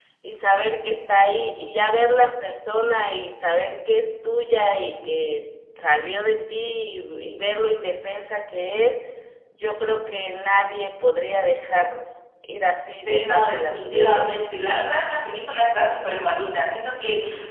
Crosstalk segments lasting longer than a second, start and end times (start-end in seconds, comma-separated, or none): 13.0-14.3